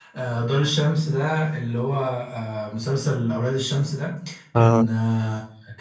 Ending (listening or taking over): listening